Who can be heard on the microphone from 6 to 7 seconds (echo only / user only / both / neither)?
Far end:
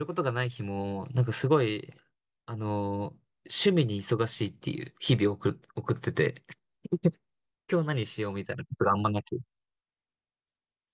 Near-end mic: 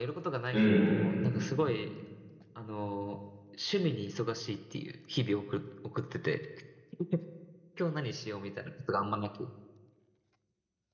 echo only